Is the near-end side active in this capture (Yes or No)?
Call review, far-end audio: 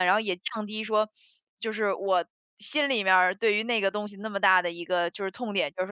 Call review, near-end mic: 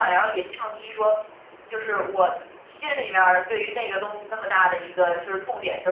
No